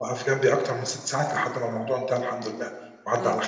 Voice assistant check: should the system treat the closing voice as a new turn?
Yes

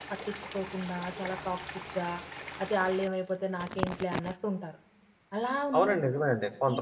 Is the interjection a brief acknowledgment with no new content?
No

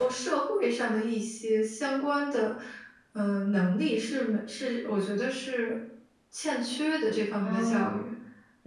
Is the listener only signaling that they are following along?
No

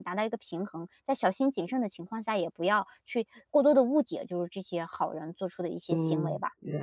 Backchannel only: No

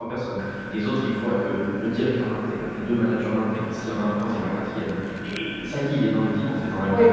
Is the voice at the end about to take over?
Yes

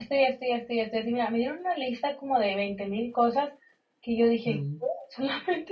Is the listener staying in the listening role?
Yes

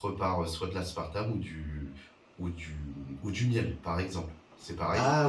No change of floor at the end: Yes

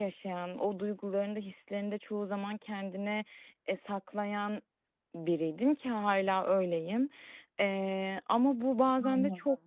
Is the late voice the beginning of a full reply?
No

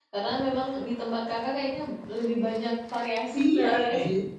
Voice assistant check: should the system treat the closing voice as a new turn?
Yes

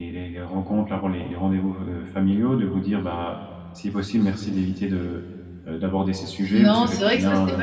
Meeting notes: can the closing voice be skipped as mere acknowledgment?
No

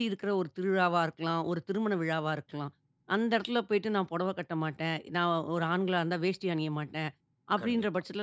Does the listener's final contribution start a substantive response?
No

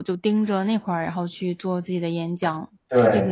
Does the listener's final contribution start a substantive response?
Yes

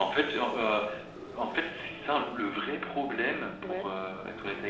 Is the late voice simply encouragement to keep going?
Yes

